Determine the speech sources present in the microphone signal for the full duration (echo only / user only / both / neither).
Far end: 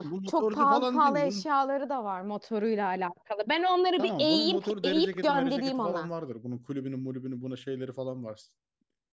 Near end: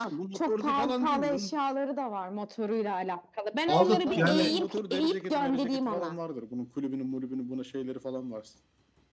both